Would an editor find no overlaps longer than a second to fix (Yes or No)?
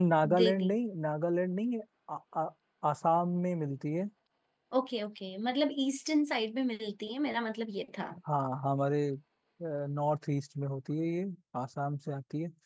Yes